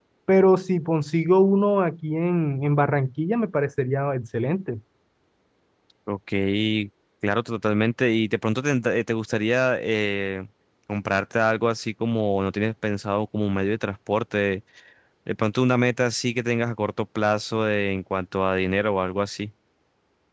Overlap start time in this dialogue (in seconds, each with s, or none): none